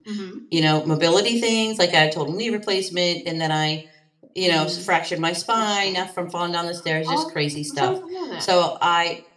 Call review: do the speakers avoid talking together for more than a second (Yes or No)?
Yes